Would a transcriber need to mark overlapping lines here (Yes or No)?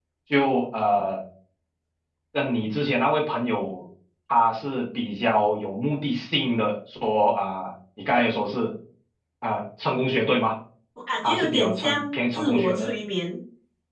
Yes